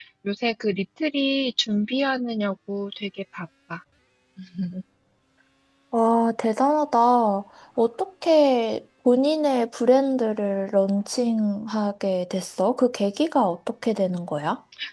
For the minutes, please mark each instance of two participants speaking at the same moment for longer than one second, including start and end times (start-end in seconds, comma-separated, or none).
none